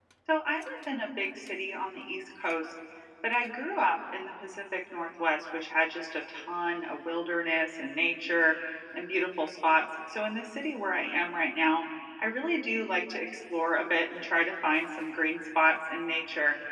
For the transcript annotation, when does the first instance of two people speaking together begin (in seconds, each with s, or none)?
none